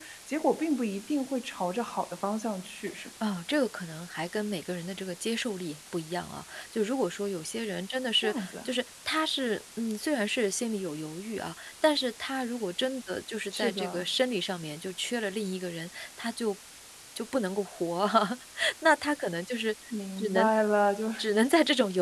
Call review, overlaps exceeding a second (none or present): none